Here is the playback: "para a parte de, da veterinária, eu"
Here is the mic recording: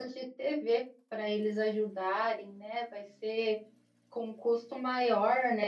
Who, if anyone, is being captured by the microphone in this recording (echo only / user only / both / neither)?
user only